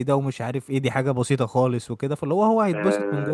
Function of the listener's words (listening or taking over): taking over